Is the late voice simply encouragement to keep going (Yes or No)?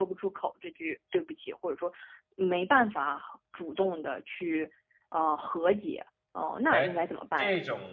No